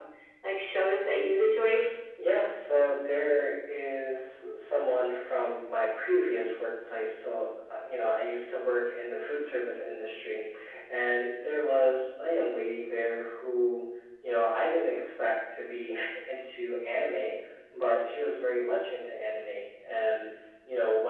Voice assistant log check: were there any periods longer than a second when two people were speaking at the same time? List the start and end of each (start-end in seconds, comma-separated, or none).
none